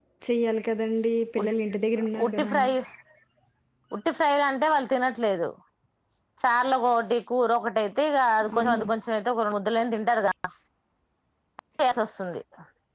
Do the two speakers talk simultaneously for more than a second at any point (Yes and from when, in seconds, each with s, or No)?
No